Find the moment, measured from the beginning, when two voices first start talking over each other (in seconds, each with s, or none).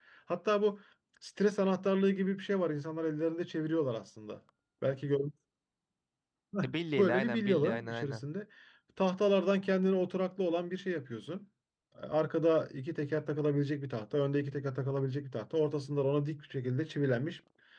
6.6 s